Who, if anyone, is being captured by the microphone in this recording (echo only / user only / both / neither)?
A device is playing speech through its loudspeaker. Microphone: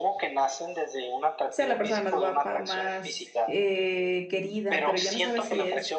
both